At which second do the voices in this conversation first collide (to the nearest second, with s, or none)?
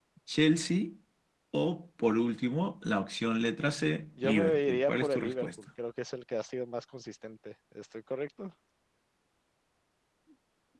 4 s